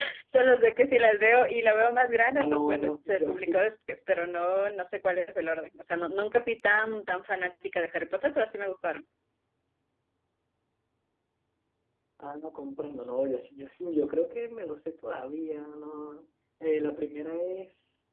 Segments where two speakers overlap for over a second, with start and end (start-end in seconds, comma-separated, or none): 2.4-3.6